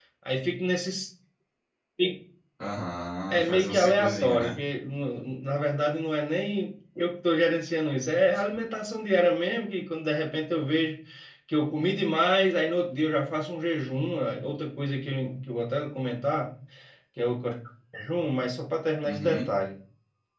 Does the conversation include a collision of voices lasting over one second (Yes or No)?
Yes